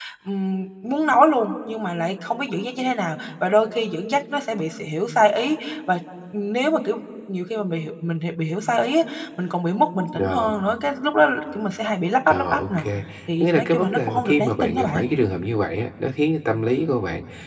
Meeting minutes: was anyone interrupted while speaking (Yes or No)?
Yes